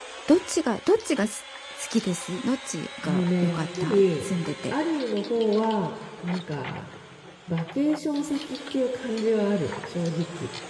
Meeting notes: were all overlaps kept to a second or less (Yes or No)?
No